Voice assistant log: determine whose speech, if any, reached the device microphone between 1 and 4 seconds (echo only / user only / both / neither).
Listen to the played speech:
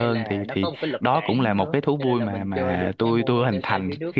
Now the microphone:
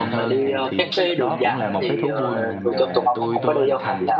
both